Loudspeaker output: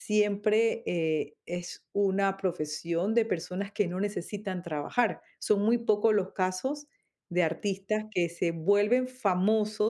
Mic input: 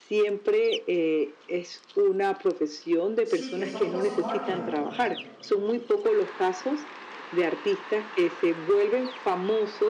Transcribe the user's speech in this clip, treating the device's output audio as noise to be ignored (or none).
Sí, que son post mortem.